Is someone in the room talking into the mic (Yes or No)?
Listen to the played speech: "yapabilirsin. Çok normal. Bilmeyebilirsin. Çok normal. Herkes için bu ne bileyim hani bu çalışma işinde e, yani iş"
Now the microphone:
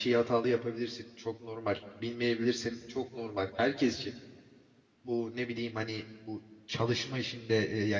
No